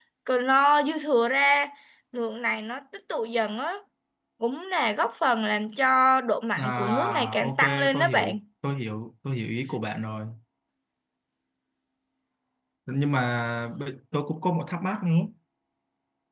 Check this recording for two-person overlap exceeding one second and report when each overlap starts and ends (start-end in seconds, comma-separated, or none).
6.6-8.4